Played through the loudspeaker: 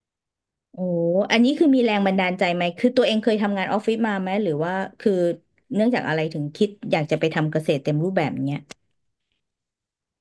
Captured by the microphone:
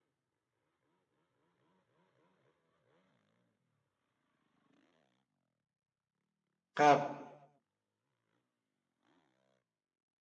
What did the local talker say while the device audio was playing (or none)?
ครับ